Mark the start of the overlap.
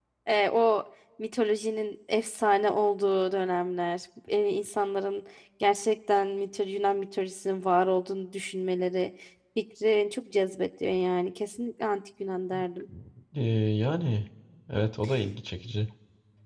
none

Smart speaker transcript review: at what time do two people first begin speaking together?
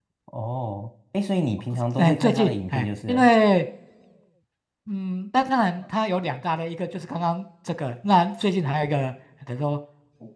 2.0 s

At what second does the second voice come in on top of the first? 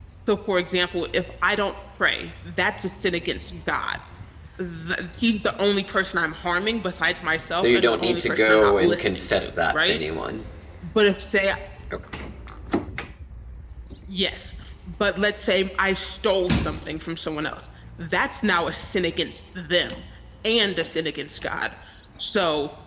7.6 s

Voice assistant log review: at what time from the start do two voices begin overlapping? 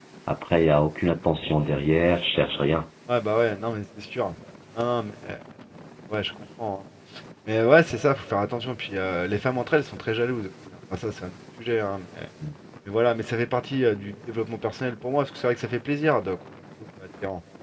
none

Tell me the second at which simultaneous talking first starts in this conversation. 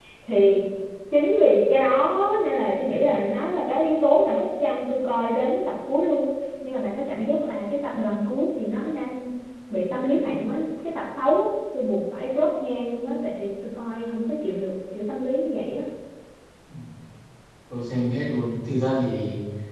none

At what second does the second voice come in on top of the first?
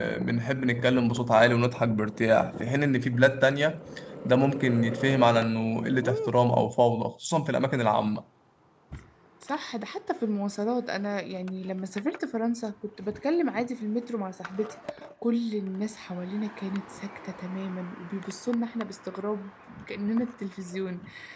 none

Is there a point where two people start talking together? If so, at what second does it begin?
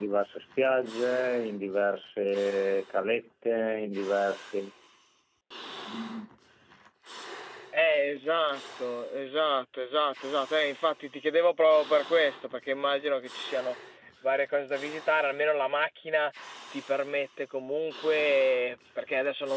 none

